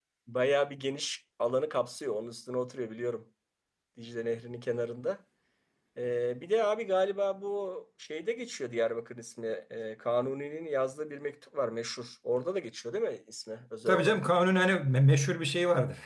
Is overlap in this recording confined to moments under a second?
Yes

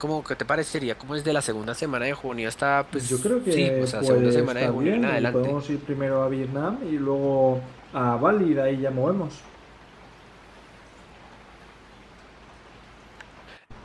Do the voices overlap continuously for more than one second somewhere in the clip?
Yes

